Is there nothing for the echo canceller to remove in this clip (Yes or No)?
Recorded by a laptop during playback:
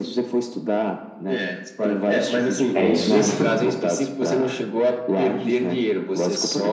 No